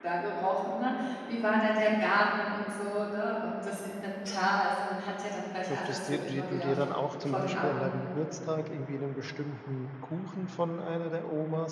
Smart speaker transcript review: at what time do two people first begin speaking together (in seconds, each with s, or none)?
5.7 s